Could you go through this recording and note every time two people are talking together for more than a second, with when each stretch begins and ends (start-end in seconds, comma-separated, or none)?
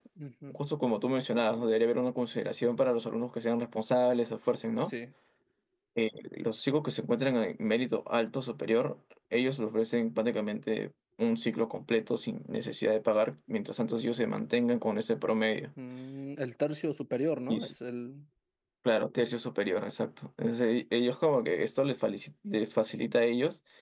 none